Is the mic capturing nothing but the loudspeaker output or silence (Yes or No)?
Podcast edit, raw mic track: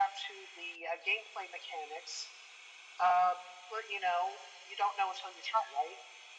Yes